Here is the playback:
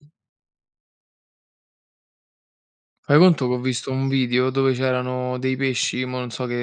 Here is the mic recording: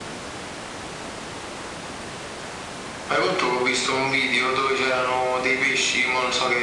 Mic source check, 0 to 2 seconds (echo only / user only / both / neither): neither